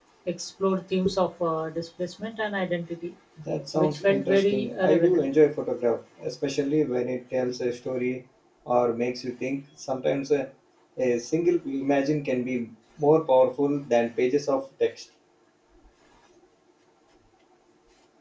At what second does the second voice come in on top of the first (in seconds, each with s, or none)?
3.7 s